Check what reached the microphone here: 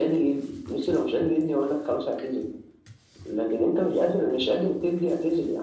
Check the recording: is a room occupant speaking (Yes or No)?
No